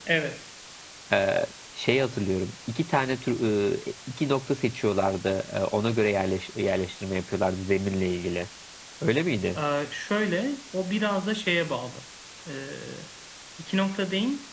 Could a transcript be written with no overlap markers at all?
Yes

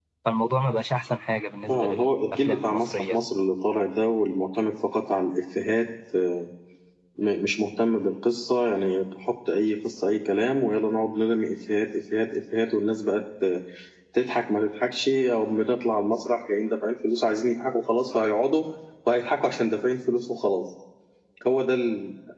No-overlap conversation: No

